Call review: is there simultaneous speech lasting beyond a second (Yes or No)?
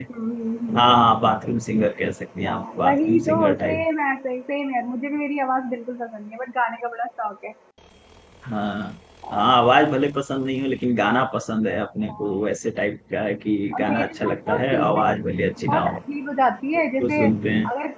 Yes